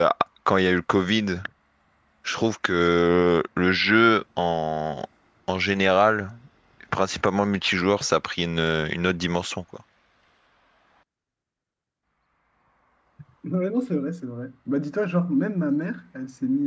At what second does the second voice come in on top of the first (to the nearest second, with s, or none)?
none